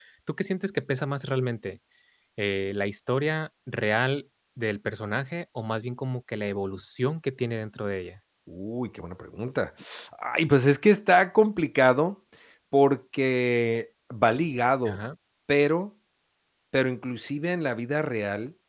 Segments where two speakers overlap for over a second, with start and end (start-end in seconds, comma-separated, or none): none